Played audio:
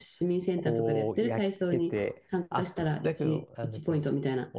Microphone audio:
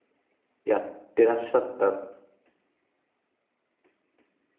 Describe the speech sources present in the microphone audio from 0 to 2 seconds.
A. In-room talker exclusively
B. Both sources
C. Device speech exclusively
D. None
A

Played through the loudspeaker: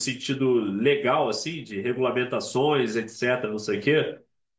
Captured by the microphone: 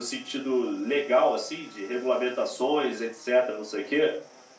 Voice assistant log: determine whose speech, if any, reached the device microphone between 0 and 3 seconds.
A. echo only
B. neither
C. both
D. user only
A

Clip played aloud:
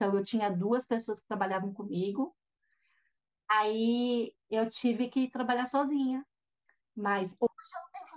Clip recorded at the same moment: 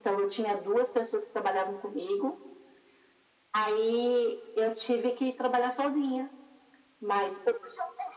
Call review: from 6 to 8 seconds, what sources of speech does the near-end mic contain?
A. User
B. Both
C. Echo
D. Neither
C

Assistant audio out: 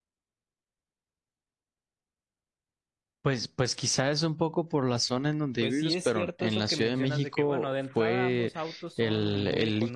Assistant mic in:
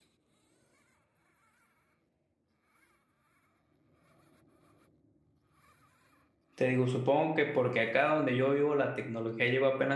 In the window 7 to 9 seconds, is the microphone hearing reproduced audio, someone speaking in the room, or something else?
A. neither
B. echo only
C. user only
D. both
C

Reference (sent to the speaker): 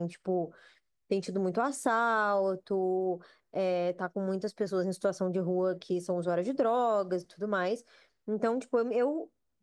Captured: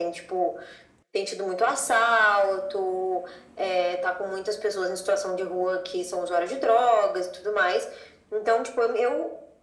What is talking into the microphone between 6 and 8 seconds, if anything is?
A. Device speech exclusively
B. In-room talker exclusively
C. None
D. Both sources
A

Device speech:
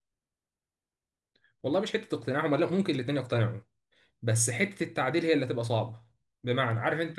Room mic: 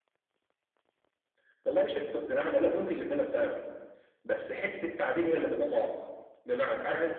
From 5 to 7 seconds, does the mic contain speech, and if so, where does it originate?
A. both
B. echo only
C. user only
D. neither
B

